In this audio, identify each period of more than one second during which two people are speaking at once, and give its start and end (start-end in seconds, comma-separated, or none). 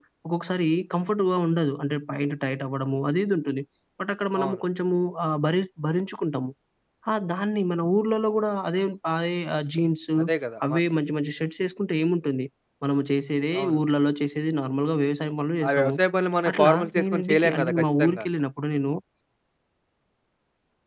16.5-18.2